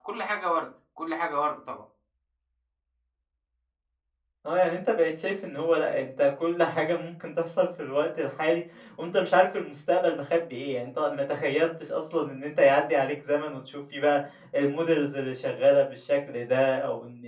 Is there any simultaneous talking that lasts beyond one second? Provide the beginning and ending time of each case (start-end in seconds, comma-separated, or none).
none